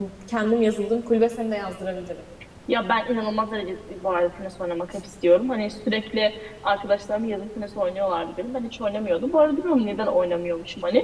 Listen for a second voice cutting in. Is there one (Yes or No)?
No